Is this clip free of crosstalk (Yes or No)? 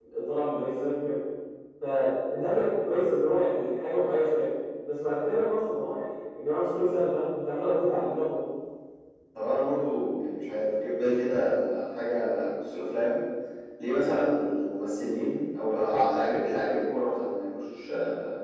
Yes